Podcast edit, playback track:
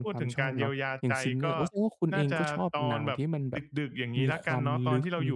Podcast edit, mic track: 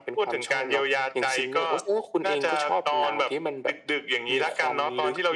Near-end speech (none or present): none